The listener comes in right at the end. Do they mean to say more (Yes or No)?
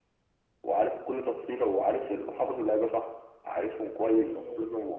No